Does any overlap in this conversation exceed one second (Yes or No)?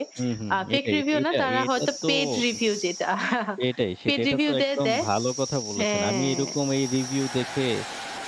Yes